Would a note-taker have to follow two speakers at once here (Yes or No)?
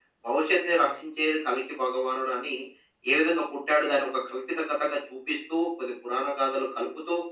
No